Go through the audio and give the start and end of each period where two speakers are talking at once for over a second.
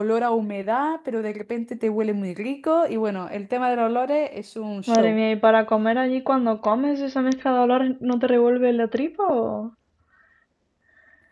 none

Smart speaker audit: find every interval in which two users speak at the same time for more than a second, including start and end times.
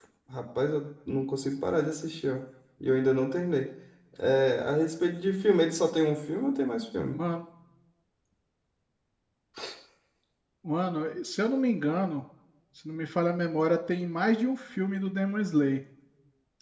none

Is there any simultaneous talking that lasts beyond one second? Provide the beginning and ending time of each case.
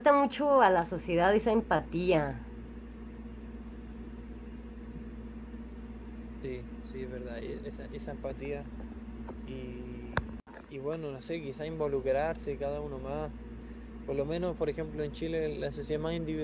none

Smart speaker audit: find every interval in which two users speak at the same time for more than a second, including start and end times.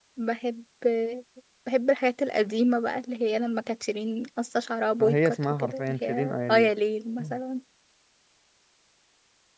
5.0-6.7

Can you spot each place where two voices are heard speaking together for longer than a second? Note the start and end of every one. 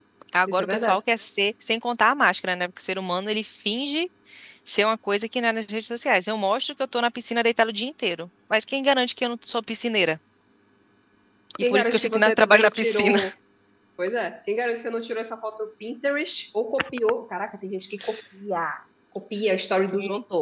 11.6-13.2

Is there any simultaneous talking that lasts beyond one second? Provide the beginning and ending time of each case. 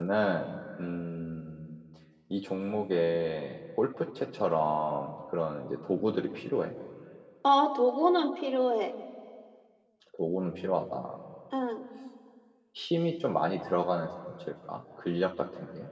none

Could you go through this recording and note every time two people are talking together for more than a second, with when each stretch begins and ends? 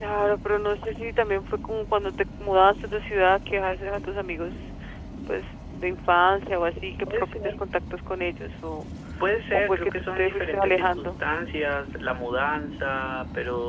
9.7-11.2

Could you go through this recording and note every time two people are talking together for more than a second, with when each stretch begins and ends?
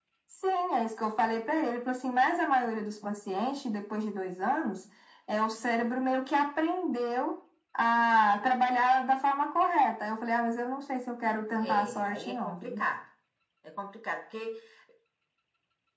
11.6-12.8

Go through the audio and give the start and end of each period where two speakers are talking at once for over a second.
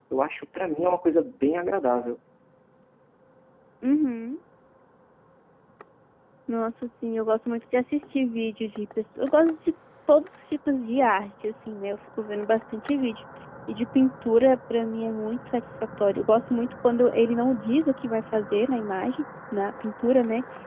none

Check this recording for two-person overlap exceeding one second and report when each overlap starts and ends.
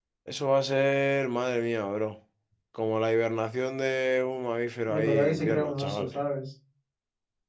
4.9-6.1

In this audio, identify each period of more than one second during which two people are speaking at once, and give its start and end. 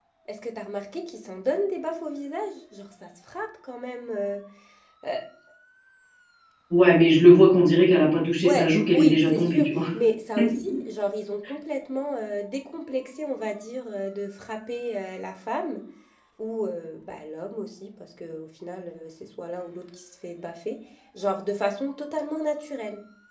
8.4-9.7

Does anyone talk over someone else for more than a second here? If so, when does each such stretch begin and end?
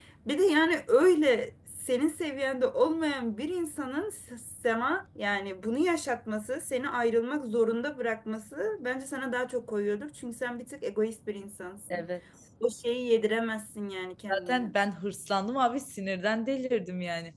none

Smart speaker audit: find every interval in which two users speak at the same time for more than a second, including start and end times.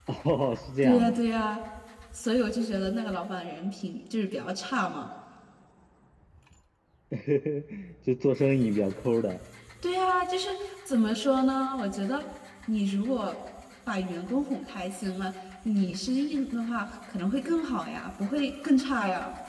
none

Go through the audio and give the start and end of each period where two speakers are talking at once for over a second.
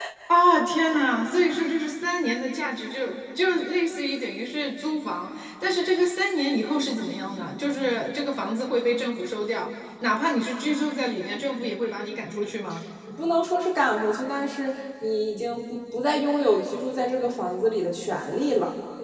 none

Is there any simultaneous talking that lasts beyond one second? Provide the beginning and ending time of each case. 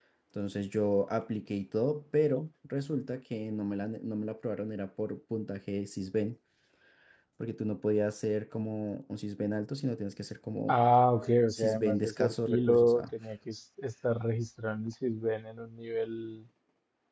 11.6-13.0

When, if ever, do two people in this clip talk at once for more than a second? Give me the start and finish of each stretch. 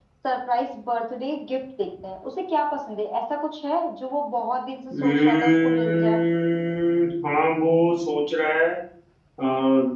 4.9-6.2

